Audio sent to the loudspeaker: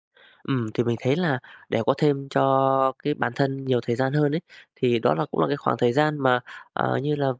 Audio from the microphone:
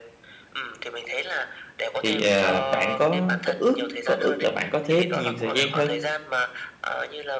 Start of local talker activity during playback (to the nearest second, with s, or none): 2 s